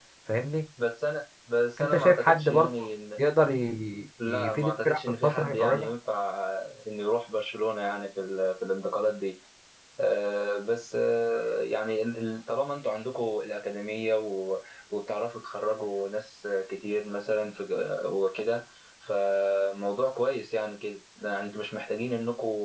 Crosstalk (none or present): present